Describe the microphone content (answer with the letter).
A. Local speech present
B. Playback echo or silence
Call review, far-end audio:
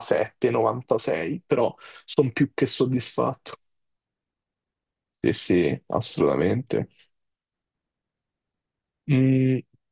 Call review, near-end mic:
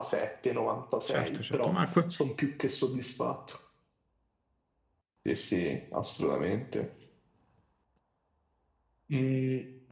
A